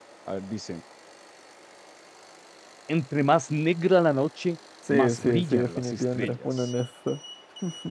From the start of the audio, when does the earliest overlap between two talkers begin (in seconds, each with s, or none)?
4.8 s